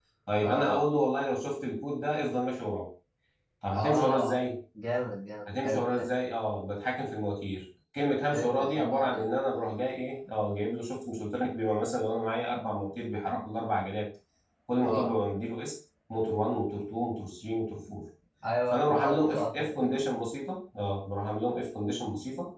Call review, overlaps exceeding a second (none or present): present